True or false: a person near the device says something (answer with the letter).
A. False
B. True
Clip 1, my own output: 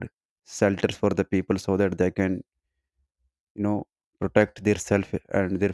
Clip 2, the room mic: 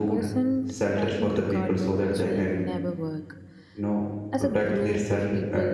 B